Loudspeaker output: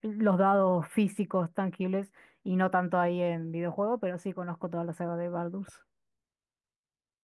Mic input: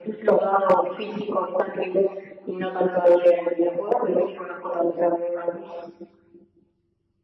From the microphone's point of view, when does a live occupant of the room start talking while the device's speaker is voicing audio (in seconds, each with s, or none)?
none